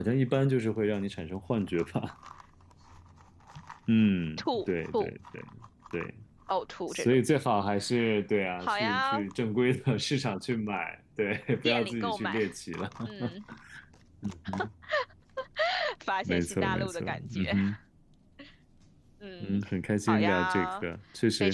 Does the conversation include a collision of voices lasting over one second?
Yes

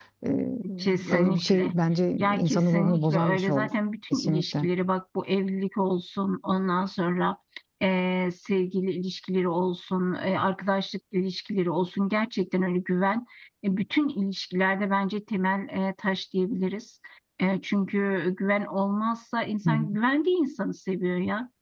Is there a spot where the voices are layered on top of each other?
Yes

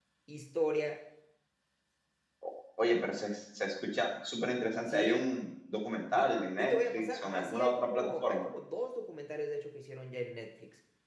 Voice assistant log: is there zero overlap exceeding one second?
No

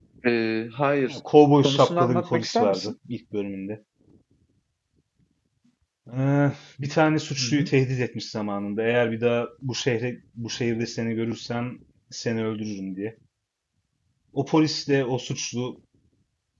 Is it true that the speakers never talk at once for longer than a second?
No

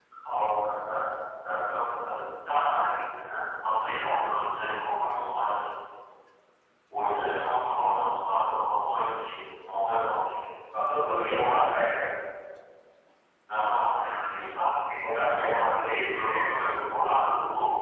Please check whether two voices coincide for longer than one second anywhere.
Yes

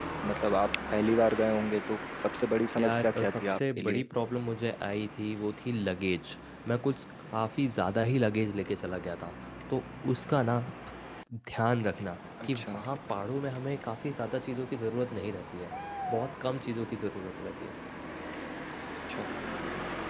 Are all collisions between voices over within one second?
No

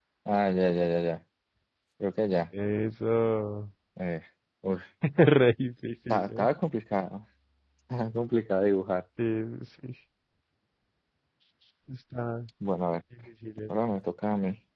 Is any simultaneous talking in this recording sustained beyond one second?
No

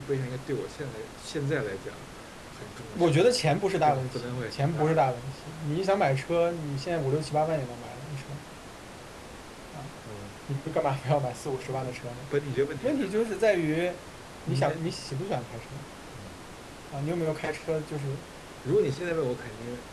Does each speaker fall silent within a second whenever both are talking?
No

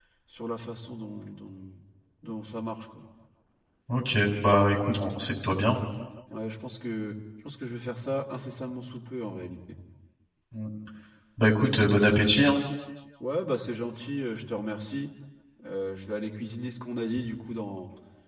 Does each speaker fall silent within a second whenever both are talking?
Yes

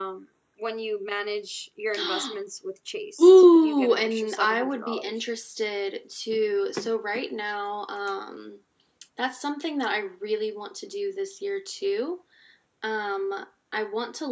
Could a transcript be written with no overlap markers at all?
No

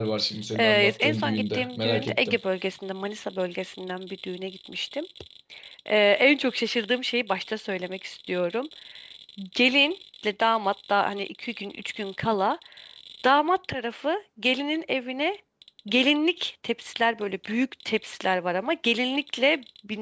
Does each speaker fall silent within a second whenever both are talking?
No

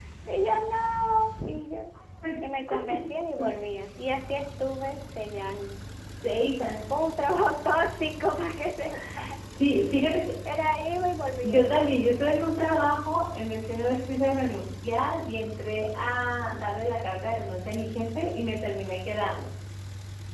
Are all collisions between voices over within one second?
Yes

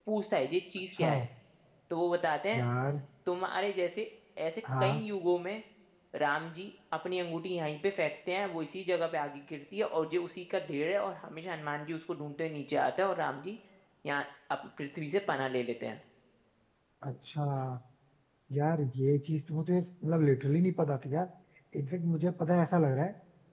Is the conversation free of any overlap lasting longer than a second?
Yes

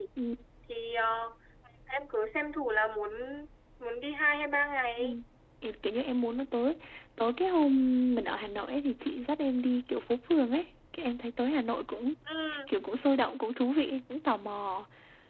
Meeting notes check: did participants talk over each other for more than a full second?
No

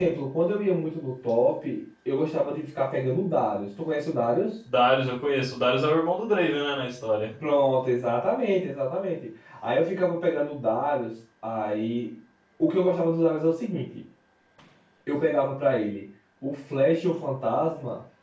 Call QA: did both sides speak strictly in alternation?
Yes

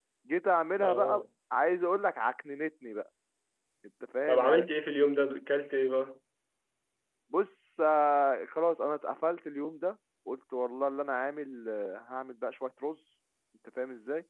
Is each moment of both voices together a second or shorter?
Yes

